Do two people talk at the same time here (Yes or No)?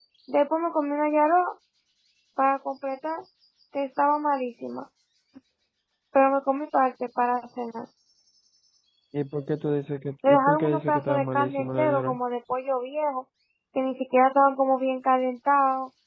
Yes